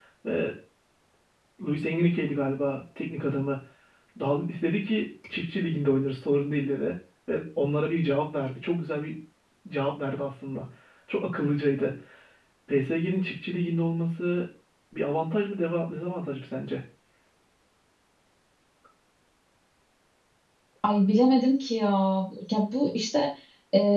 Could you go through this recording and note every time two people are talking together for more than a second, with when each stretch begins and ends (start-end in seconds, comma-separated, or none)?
none